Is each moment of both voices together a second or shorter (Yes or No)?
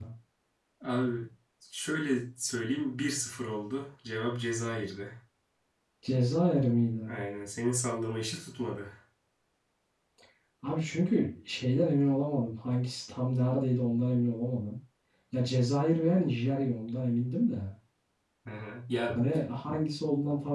Yes